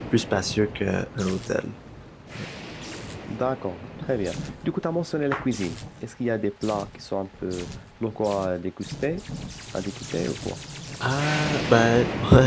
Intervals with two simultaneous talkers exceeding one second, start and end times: none

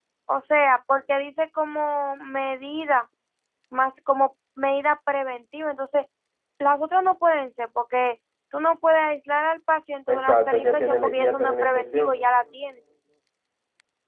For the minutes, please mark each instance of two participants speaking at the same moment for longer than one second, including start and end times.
10.1-12.2

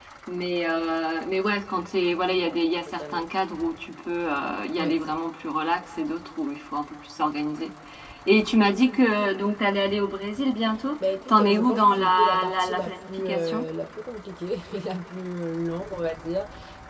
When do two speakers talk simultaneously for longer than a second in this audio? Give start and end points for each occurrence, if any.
11.3-13.6

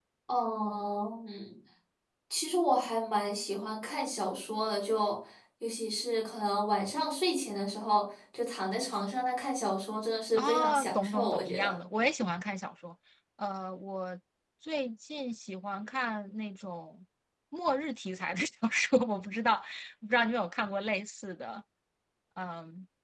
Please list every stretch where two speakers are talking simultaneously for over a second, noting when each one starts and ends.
10.4-11.8

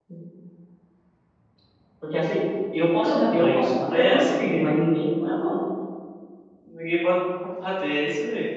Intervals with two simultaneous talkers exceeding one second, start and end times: 3.0-4.7

